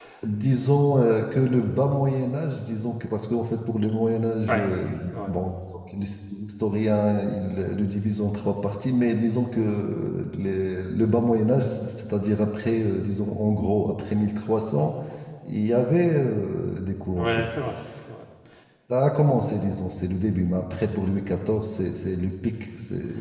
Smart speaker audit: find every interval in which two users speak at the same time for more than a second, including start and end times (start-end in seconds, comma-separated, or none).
none